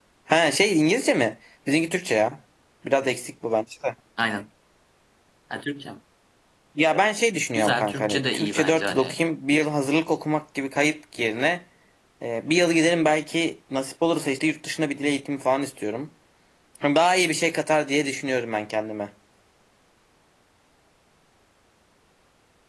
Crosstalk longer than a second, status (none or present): present